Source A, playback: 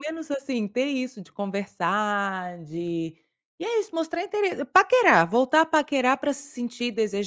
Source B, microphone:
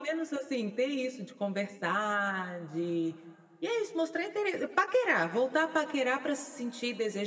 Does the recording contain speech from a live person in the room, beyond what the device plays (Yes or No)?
No